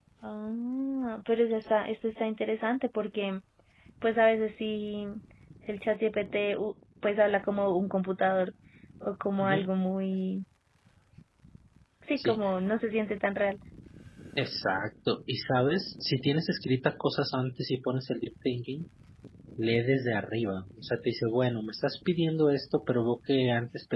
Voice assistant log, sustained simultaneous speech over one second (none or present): none